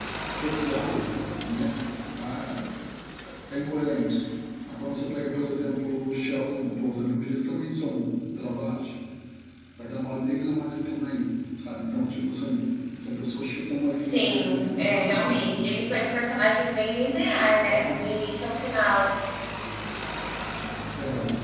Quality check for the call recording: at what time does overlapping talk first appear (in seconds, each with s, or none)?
13.9 s